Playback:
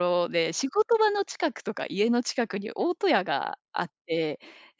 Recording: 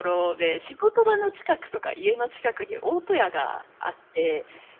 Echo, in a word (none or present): present